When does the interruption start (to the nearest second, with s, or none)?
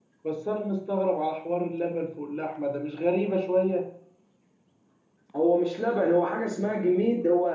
none